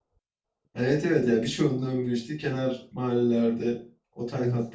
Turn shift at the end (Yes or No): No